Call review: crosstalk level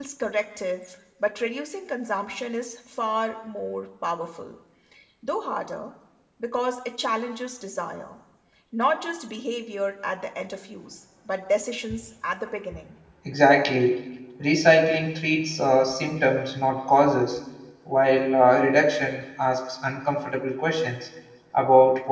none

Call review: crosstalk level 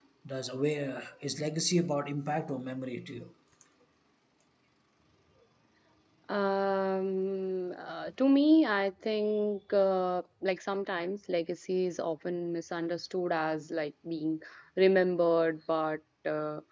none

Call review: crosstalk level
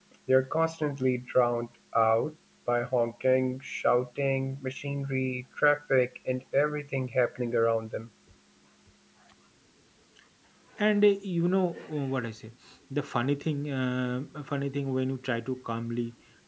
none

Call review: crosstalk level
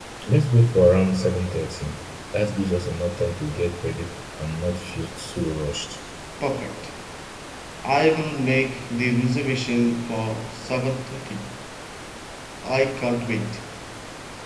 none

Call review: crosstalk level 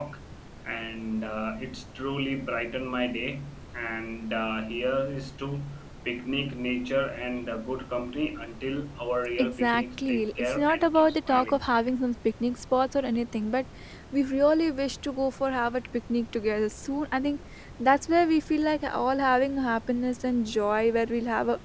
present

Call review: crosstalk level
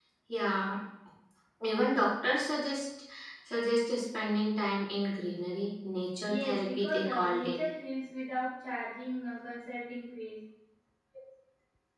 present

